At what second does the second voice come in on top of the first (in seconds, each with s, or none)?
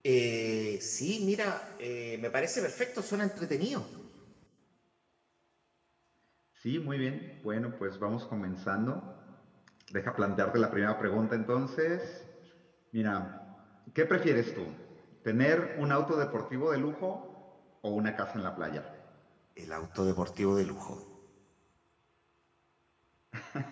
none